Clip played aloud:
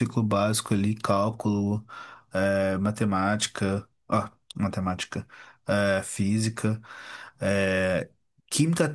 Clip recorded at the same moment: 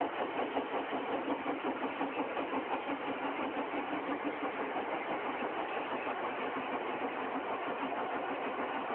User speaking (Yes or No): No